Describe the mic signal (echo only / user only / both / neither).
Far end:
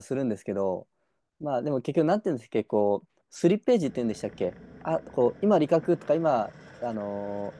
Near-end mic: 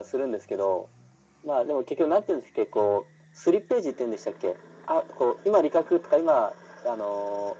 echo only